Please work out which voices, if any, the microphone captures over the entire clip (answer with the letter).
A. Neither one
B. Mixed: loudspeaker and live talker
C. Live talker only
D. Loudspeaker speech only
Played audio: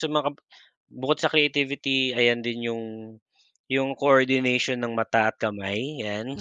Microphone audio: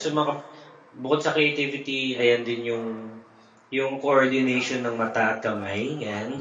D